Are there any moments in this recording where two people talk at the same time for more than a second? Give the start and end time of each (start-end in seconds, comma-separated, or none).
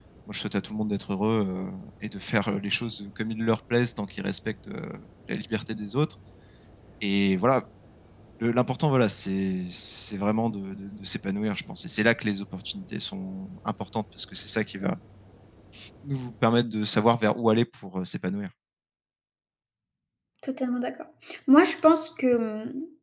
none